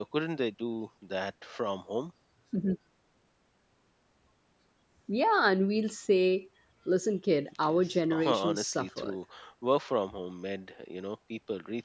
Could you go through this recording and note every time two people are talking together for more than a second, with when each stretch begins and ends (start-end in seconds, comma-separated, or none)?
7.6-9.2